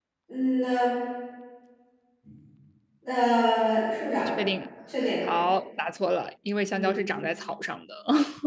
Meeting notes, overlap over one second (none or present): none